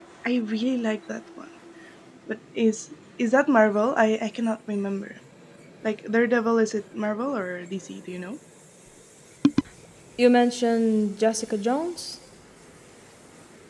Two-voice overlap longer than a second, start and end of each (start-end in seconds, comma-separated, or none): none